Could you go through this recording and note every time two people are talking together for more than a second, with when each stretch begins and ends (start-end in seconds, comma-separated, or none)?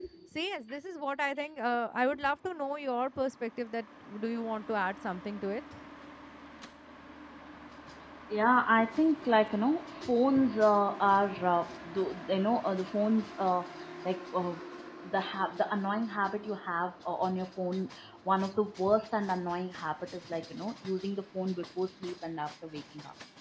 none